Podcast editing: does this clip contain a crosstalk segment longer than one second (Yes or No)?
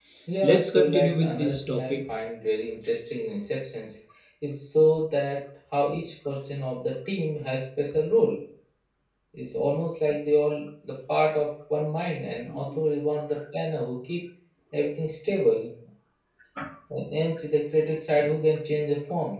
Yes